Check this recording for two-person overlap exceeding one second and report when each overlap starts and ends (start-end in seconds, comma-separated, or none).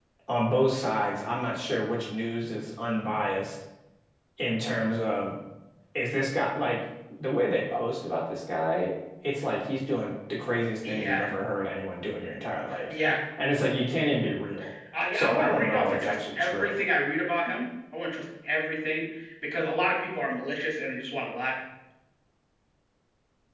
15.1-16.8